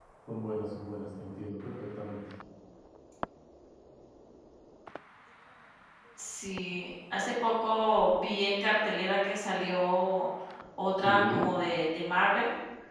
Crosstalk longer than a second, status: none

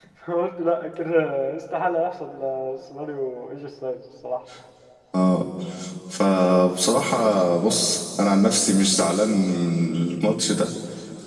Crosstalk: none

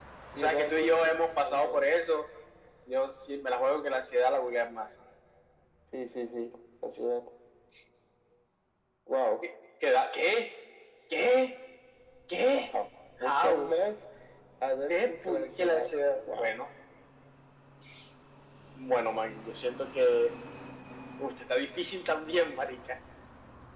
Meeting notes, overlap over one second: present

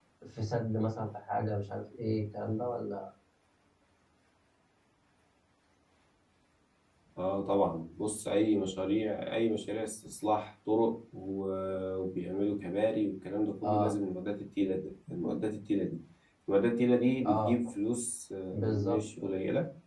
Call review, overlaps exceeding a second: none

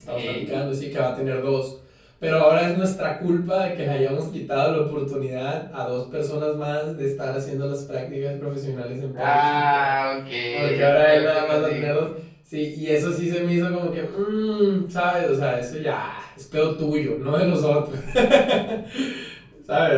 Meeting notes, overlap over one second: present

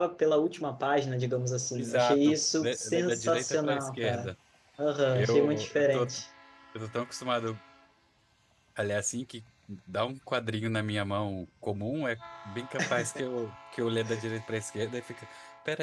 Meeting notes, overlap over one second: present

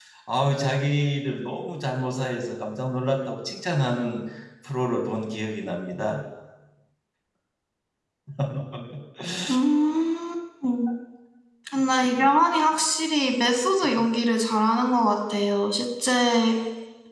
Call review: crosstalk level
none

